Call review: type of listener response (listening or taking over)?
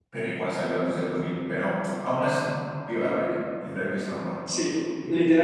taking over